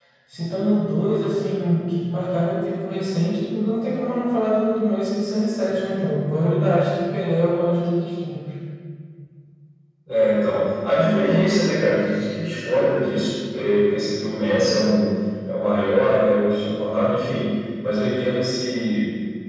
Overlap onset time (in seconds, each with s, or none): none